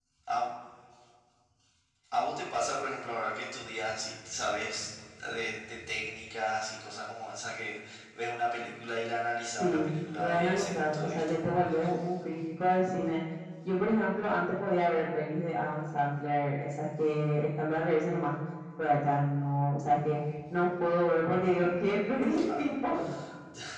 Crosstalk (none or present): present